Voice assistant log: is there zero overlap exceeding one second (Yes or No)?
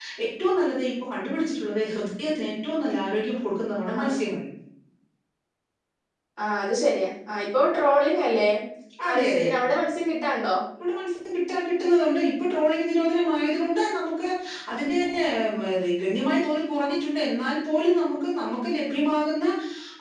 Yes